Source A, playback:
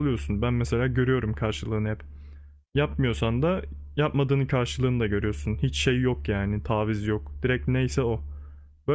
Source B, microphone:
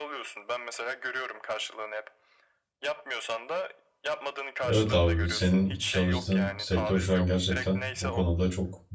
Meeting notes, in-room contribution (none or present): present